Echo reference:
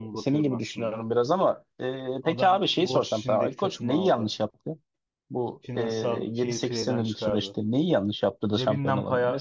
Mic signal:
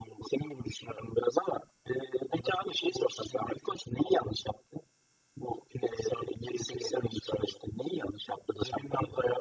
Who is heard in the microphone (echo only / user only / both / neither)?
echo only